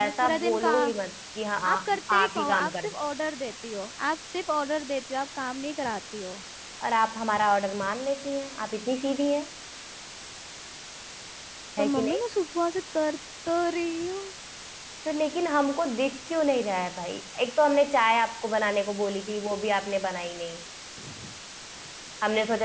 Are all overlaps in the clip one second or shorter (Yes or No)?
No